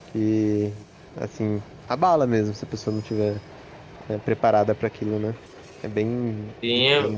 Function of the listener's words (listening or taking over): taking over